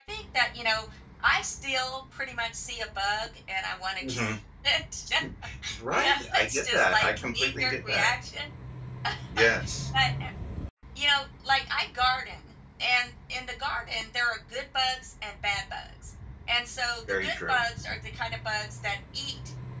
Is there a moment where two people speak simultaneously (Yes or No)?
Yes